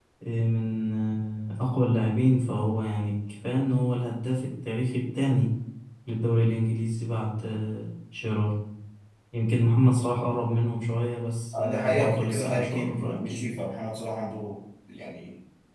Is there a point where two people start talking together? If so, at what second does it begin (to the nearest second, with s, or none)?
12 s